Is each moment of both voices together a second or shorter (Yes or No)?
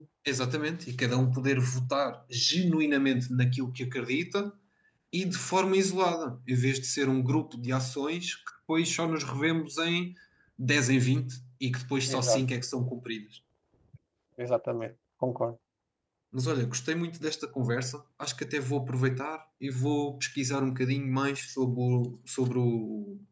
Yes